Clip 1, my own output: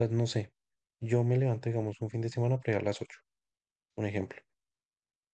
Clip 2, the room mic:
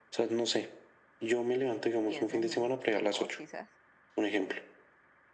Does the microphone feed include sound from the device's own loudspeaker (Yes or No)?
Yes